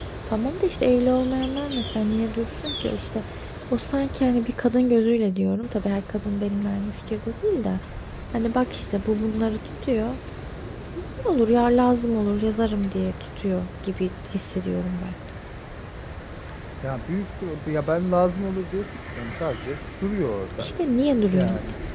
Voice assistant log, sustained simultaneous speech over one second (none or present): none